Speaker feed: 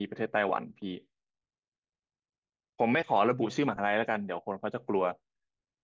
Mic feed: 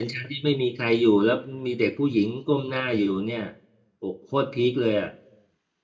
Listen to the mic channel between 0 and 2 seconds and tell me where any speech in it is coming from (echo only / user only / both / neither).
user only